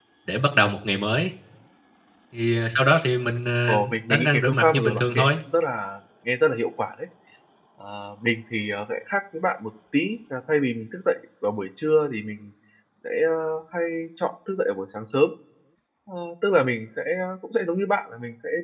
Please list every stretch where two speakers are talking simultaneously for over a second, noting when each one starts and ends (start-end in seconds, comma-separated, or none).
3.7-5.3